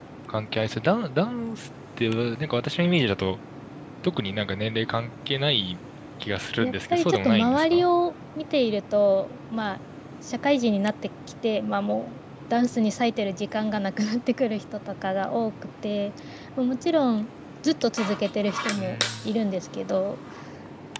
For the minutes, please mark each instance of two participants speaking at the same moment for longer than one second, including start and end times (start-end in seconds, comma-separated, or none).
6.6-7.9